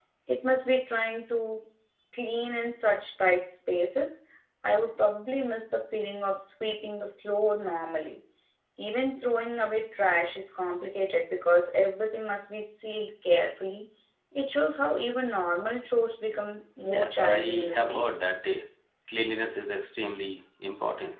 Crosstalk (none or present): present